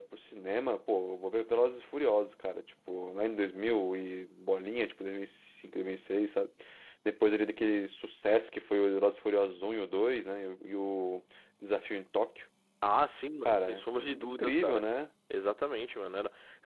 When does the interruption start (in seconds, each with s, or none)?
13.4 s